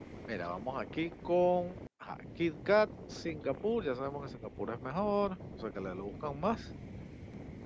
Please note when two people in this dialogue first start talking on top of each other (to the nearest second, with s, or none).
none